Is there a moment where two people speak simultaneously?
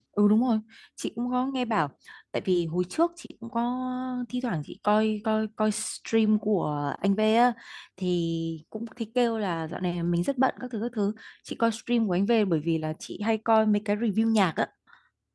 No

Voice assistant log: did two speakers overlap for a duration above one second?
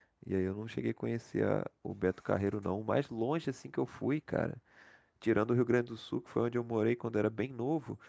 No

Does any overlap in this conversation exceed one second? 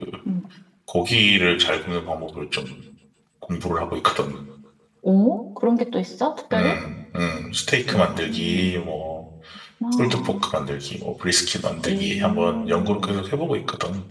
Yes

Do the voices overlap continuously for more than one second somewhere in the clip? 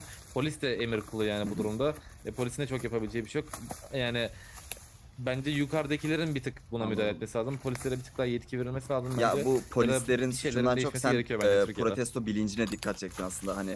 Yes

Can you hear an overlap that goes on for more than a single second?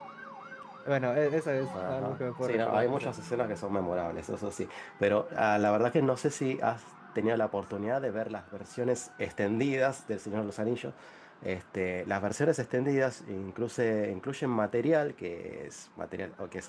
Yes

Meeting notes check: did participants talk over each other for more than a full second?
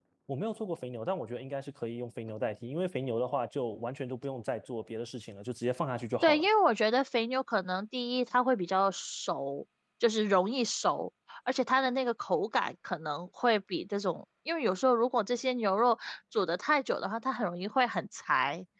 No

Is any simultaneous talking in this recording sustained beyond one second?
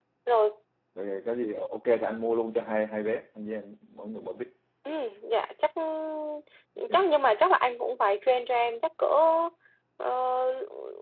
No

